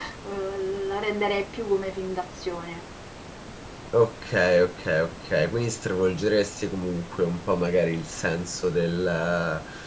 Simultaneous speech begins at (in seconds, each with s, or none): none